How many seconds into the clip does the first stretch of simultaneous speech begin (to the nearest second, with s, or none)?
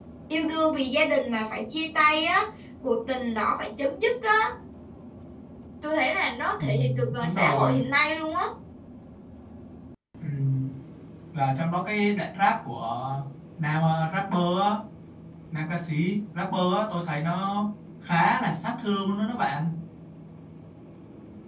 7 s